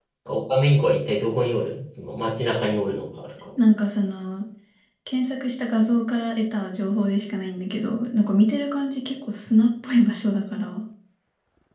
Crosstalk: none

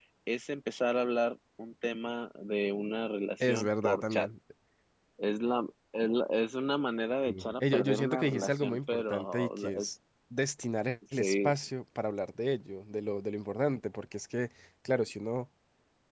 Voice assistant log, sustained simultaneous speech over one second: present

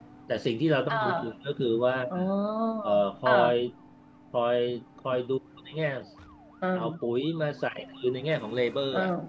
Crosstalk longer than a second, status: none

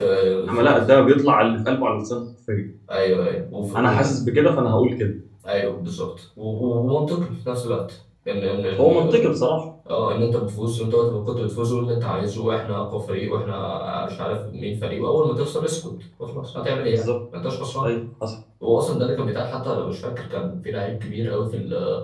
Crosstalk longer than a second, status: none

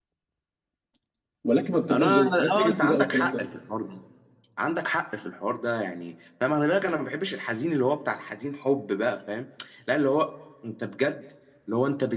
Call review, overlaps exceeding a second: present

